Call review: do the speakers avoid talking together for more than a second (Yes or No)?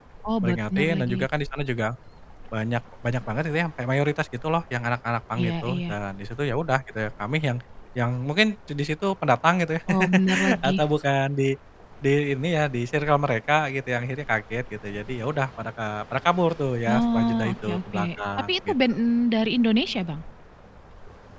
No